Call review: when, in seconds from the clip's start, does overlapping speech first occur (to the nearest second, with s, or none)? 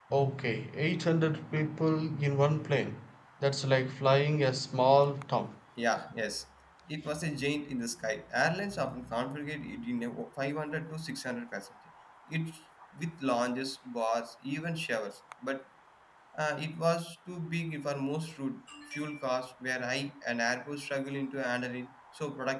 none